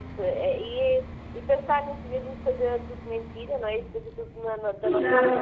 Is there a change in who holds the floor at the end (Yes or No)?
Yes